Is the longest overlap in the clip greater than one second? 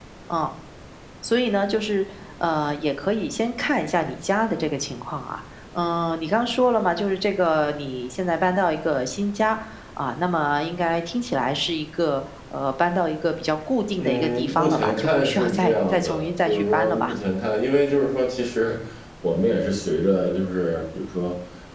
Yes, from 14.0 s

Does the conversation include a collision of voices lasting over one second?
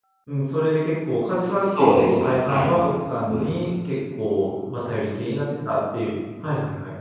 Yes, from 1.4 s

